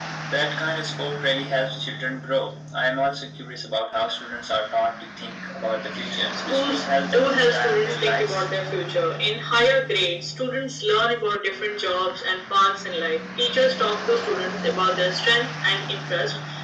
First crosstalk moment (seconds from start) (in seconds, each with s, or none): 6.5 s